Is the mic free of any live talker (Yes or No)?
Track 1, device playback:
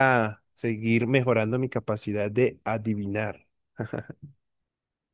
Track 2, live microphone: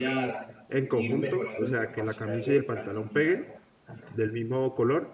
No